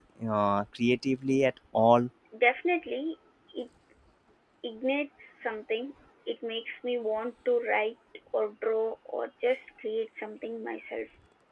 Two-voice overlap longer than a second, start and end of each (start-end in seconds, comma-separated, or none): none